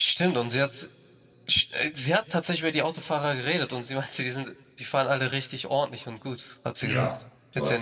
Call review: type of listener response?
taking over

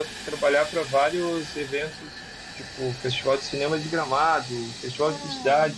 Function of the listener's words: listening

